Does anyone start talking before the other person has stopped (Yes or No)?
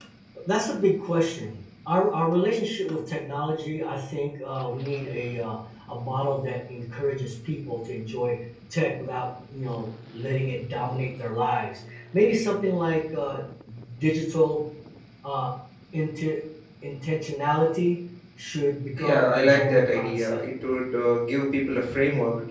Yes